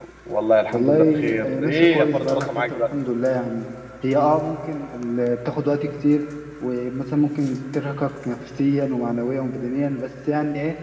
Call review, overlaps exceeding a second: present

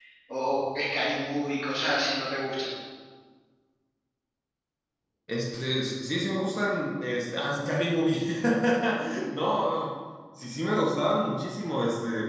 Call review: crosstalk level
none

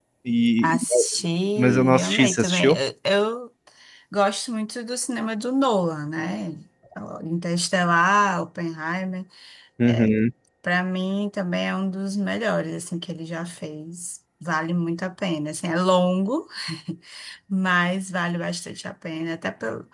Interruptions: present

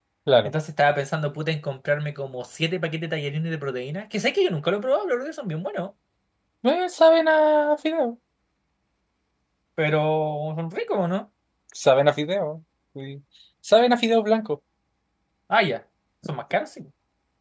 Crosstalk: none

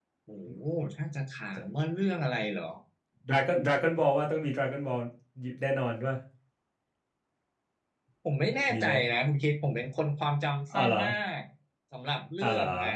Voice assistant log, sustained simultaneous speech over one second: none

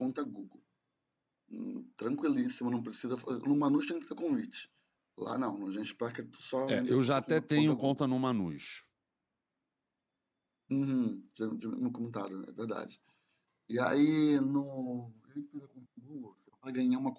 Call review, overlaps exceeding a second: present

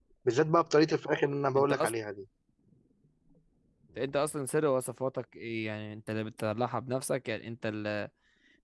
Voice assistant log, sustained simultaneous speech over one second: none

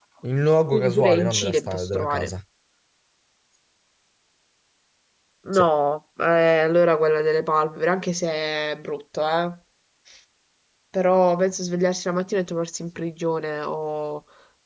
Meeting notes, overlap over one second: present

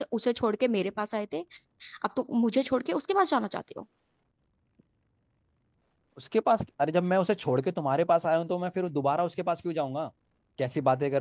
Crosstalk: none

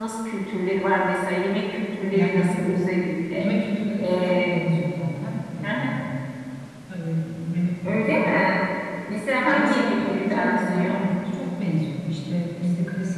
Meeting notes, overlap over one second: present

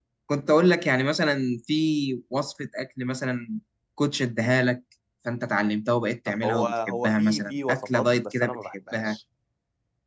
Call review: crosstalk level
present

